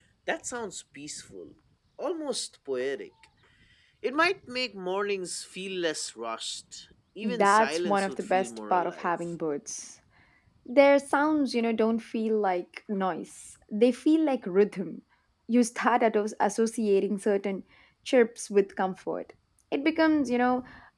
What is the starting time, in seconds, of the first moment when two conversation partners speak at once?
7 s

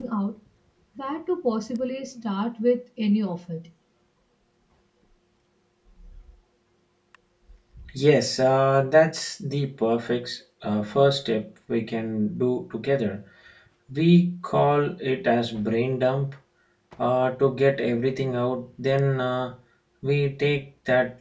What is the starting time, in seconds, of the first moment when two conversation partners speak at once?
none

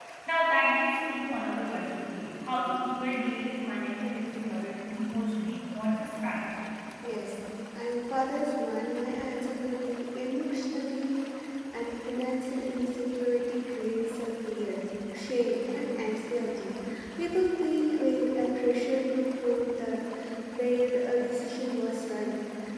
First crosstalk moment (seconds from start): none

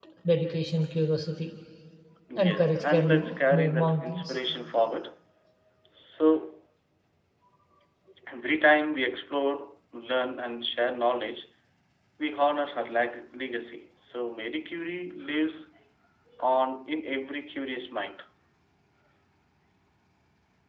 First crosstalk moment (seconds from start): 2 s

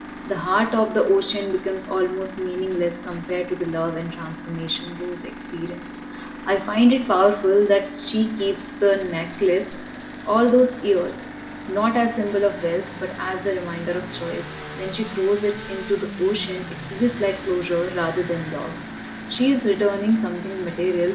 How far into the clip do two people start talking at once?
none

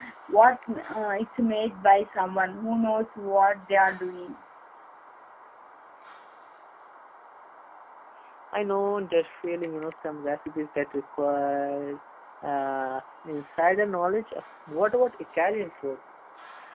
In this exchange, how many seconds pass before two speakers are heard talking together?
none

